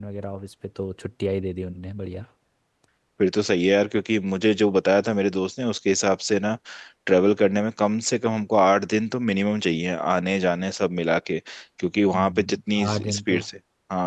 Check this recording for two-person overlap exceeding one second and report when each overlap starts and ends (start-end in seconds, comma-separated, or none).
12.1-13.4